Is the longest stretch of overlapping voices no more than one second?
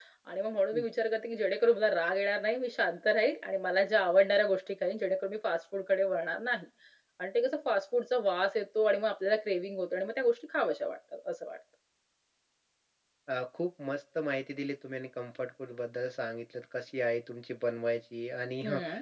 Yes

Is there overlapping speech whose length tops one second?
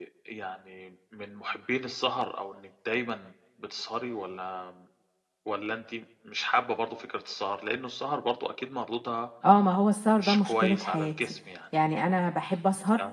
Yes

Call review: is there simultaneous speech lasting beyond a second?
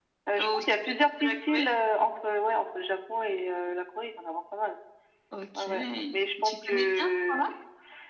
Yes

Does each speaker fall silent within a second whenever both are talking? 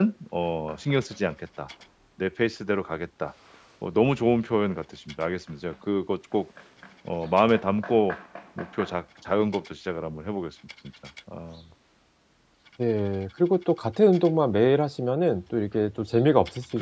Yes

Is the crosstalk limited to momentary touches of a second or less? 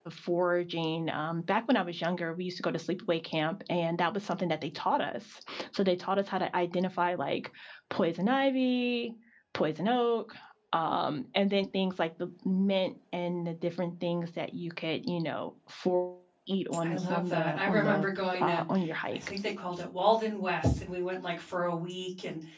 No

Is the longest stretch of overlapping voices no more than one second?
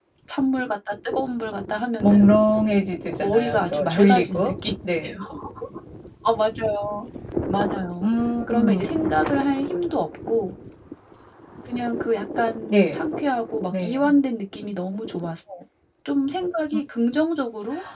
No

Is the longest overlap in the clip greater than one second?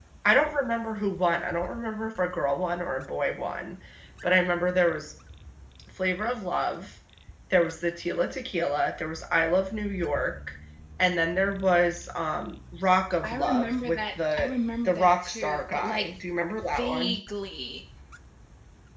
Yes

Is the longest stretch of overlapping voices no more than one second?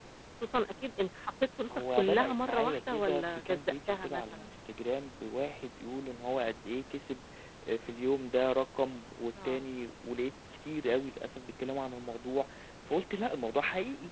No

